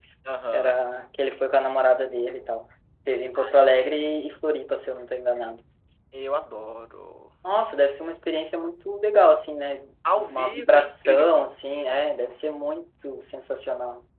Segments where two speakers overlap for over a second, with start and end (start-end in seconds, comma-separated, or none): 10.2-11.5